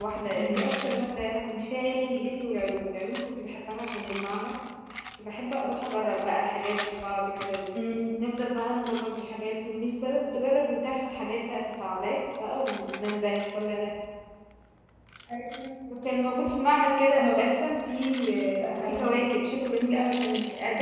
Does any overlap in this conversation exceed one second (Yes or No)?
No